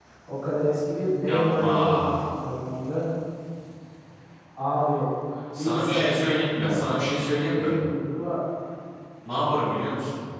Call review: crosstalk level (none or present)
present